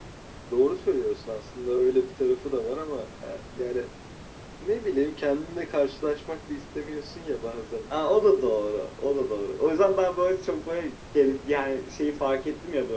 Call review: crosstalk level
none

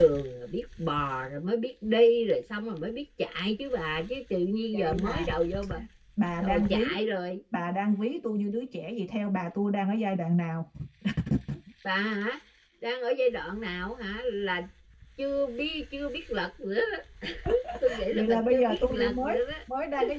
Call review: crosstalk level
present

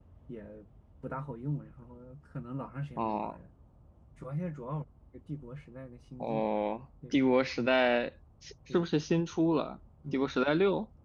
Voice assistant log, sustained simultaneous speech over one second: none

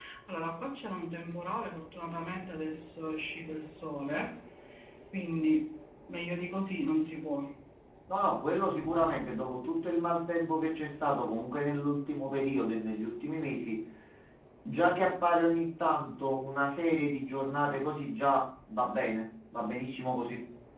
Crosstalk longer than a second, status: none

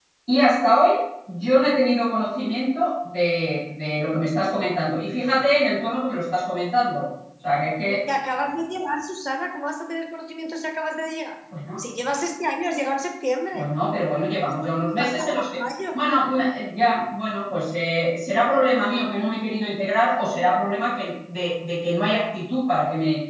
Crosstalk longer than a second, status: none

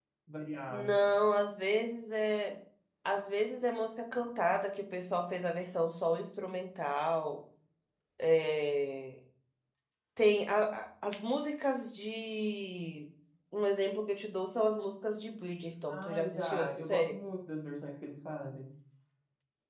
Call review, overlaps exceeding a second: present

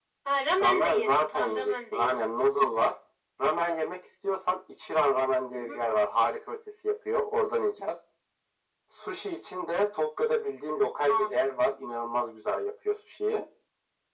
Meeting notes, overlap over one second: present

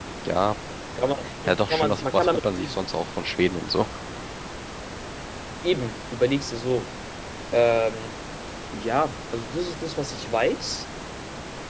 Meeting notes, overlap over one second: present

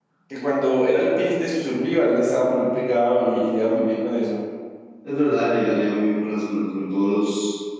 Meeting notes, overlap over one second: none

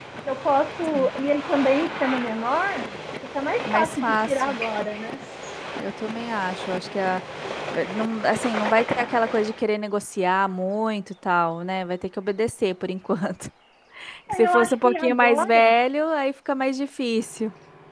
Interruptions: present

